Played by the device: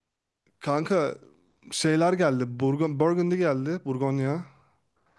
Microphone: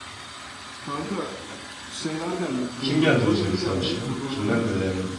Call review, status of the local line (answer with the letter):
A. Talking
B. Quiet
A